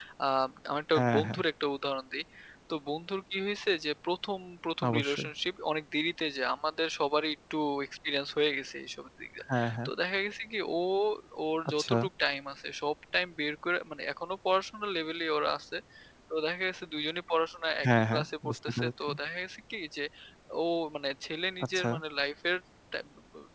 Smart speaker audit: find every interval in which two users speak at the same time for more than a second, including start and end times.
17.9-19.1

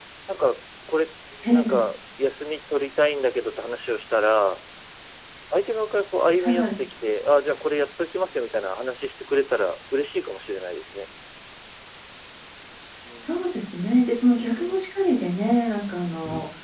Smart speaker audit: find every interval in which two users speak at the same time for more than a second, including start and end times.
none

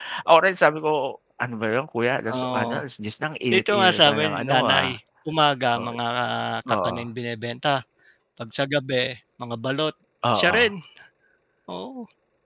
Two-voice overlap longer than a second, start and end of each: 3.5-5.0

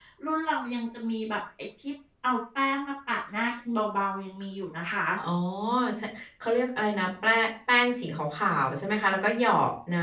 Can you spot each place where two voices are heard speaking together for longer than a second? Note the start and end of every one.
none

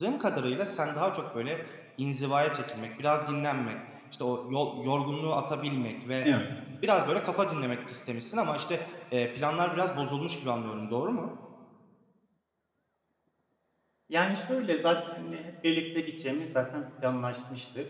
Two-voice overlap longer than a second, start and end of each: none

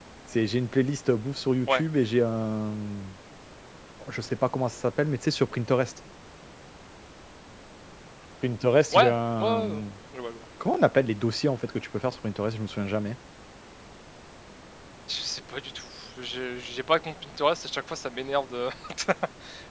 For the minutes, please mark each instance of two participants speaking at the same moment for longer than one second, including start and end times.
none

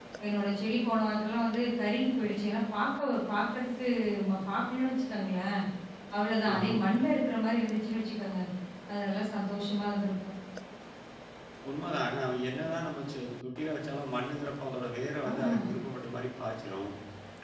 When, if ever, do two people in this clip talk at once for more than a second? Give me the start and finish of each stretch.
none

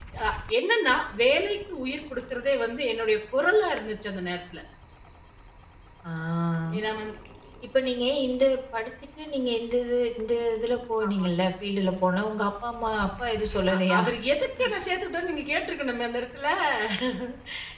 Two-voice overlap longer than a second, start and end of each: none

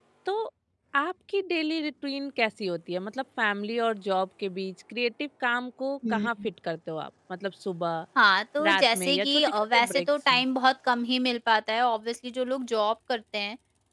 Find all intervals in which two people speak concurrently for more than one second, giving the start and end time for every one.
8.7-10.4

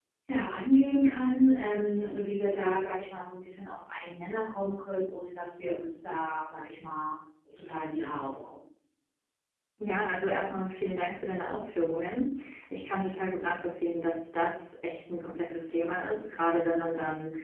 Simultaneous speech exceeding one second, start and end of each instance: none

